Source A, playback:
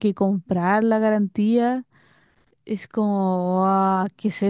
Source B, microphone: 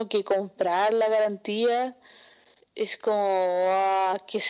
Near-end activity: none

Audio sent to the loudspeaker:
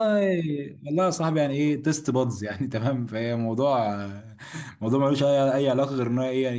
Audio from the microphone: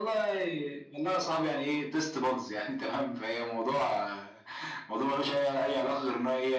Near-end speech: none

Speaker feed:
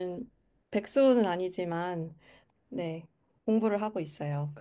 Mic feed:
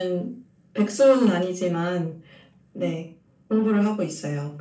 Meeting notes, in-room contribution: none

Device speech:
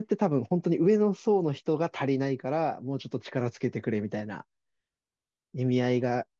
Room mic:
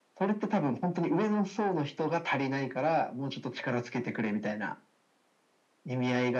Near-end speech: none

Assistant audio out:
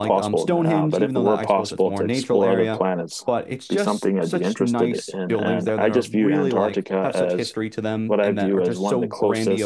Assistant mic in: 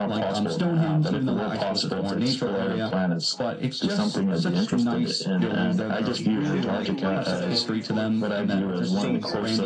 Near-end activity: present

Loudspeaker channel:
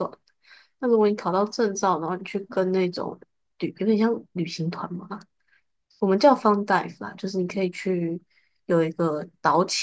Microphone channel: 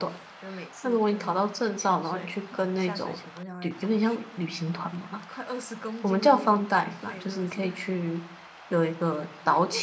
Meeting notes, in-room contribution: present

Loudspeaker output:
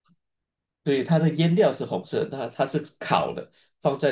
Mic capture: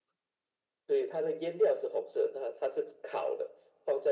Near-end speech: none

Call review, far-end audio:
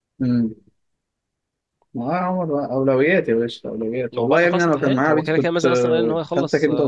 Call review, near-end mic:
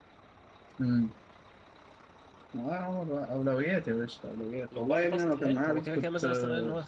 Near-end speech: none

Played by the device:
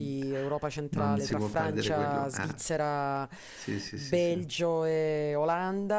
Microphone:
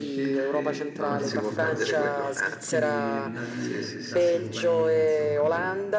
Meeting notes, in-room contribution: present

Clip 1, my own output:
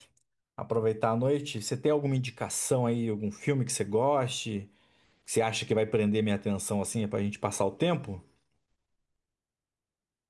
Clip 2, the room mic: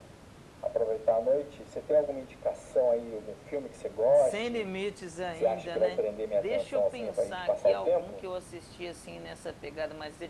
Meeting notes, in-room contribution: present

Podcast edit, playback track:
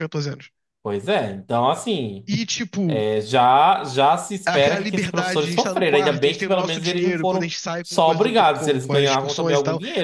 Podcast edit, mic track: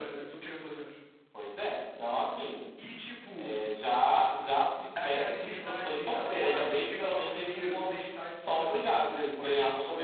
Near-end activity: none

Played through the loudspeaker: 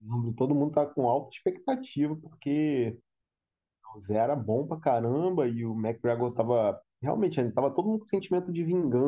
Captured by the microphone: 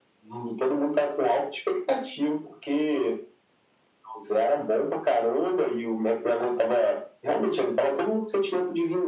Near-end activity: none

